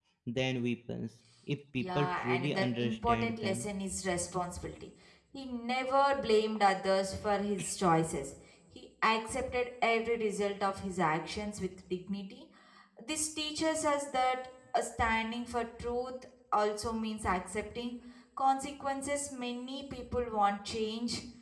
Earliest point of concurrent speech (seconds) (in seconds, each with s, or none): 1.8 s